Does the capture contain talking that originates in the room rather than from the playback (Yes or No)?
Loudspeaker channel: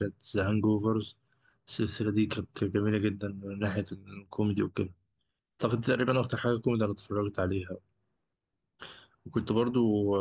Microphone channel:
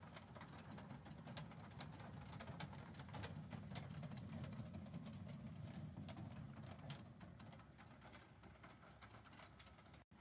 No